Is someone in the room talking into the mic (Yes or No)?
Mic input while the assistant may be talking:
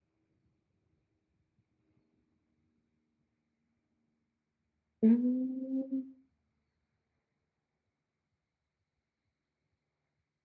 Yes